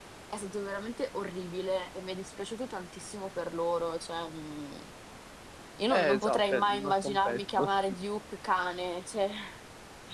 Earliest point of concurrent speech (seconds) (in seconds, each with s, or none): 5.9 s